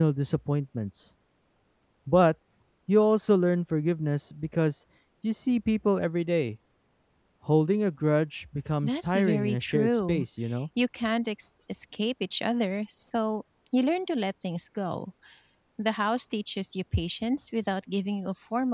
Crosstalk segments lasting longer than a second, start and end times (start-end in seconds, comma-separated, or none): 8.8-10.2